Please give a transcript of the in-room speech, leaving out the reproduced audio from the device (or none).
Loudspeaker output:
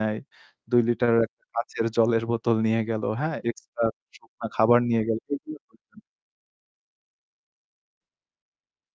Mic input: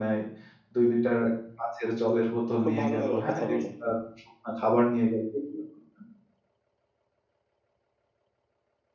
খুব ভালো লাগলো কথা বলে।